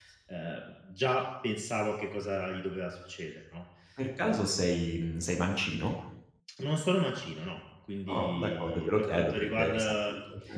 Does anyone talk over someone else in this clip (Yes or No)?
Yes